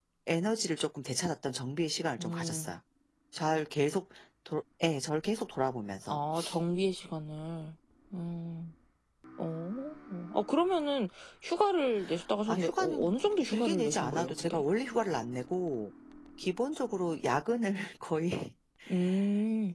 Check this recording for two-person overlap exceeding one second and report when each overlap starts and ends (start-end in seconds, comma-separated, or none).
12.5-14.6